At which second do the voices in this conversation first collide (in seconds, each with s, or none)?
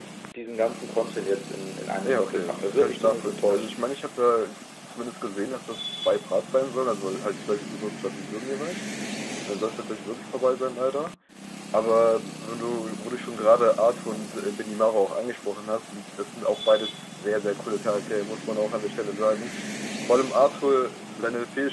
2.1 s